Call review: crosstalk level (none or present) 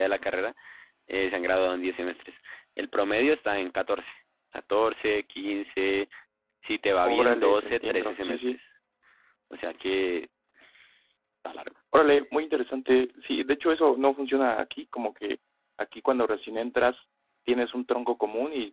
present